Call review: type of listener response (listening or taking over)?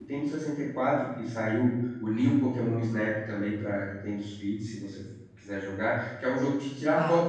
listening